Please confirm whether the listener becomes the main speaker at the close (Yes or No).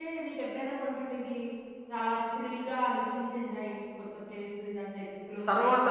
Yes